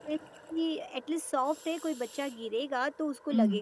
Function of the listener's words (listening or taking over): taking over